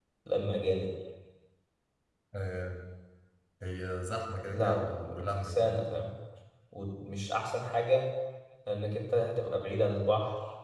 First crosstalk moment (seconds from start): 4.5 s

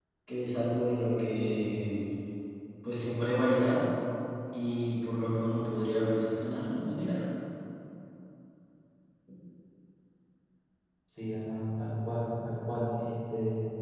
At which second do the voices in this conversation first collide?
none

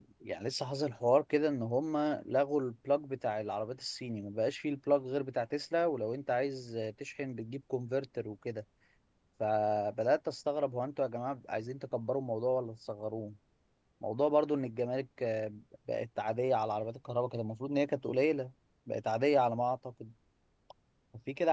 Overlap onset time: none

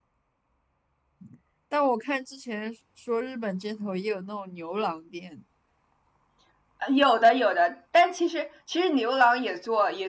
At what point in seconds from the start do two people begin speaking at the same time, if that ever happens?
none

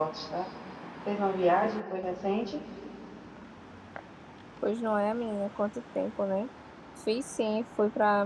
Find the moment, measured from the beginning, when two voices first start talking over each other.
none

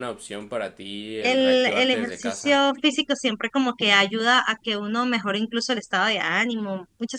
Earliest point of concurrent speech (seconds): 1.2 s

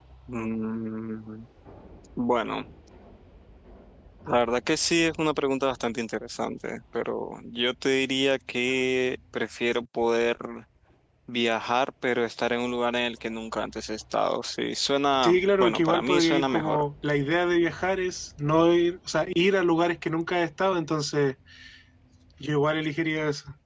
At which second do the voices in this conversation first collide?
15.2 s

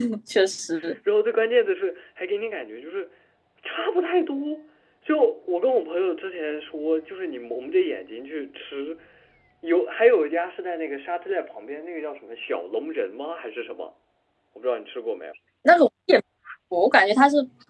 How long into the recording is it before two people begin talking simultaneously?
none

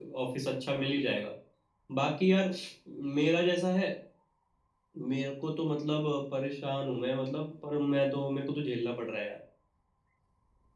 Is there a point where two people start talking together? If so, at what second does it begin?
none

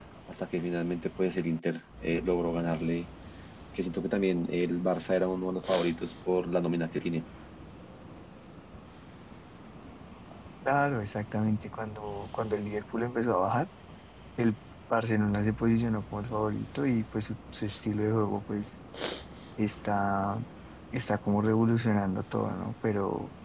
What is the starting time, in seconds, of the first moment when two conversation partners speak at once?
none

